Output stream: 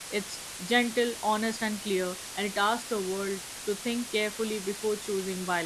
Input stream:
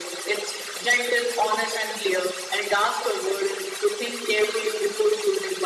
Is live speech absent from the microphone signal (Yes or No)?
Yes